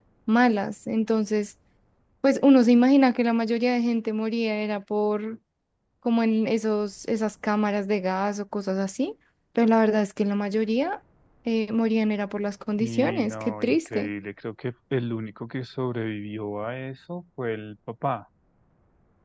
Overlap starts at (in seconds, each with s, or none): 12.8 s